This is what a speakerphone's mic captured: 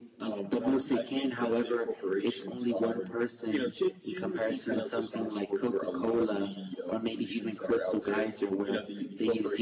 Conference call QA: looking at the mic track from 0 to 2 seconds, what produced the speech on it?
echo only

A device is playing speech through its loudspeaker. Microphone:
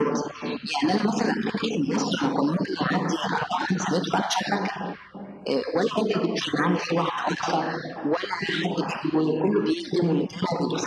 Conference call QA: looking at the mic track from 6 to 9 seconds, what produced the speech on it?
echo only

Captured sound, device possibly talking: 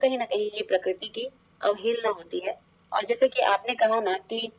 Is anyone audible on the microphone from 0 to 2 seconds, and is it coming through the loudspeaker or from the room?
echo only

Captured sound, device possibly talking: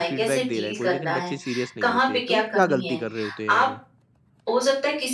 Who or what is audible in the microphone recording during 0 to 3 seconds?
both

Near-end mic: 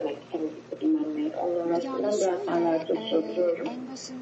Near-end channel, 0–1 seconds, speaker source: echo only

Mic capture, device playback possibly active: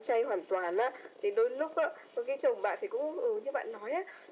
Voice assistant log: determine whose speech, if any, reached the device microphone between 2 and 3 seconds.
echo only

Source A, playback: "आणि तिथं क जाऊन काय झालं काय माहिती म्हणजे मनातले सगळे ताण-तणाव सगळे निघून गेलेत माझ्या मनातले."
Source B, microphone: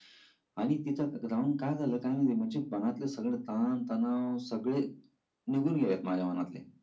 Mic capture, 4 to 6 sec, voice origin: echo only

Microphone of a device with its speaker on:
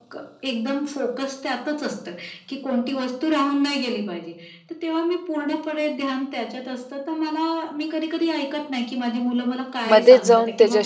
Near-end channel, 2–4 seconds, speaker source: echo only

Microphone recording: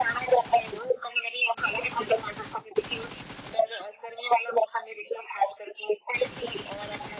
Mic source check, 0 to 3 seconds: echo only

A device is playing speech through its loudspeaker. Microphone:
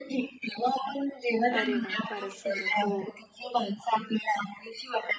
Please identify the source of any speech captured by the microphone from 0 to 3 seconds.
both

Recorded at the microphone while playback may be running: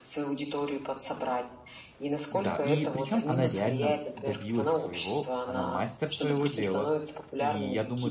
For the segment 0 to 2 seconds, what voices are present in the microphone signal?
echo only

